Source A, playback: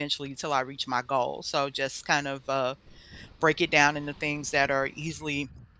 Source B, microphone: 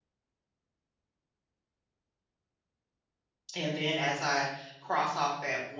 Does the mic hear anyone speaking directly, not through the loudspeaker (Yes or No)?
Yes